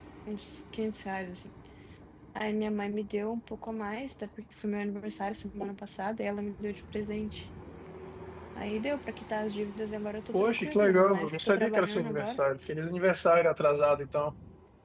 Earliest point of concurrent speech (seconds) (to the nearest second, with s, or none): 10 s